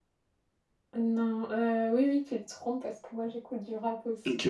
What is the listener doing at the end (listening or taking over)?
taking over